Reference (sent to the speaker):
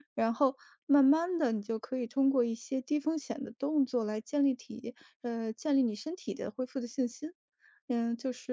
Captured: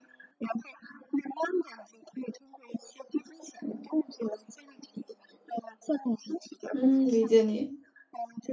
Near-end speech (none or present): present